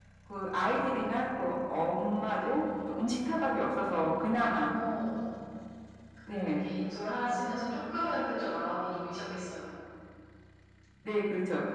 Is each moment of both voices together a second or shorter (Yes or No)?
Yes